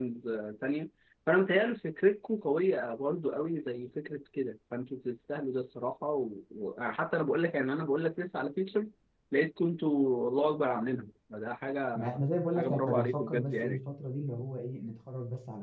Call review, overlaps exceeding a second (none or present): present